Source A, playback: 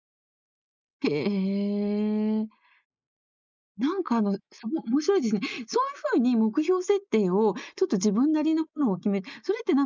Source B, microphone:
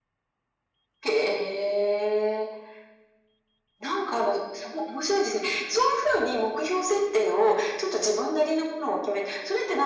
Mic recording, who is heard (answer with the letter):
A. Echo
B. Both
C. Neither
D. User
A